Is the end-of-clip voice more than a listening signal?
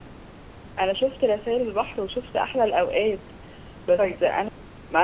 No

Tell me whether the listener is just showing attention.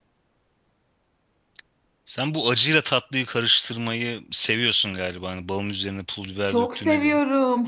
No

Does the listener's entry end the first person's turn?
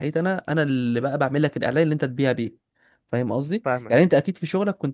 No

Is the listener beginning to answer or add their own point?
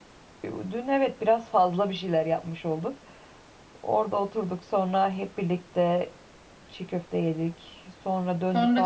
Yes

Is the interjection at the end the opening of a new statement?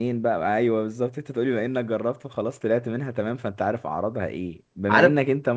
No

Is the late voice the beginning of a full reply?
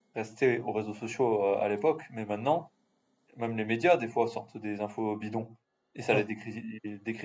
No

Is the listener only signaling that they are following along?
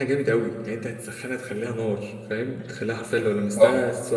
Yes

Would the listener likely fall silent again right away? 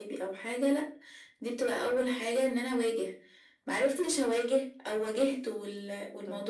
Yes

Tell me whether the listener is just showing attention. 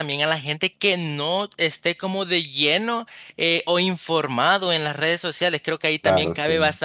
Yes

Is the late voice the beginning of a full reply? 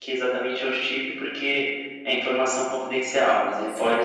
No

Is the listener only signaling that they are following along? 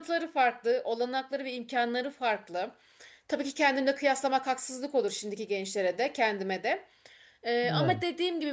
Yes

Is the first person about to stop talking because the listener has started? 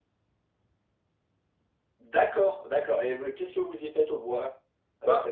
Yes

